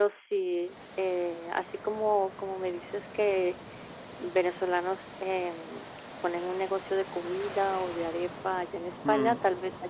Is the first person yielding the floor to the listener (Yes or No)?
No